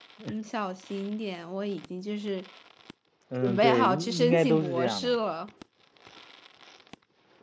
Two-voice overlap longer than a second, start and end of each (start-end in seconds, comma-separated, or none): 3.4-5.2